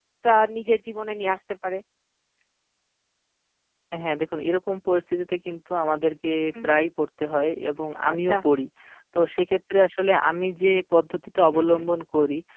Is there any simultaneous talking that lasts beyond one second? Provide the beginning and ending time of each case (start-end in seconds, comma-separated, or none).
none